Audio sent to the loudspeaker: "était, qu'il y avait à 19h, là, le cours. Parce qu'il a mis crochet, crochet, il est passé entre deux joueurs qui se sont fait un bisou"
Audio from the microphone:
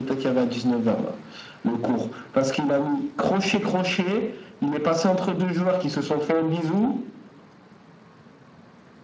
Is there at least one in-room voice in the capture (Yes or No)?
No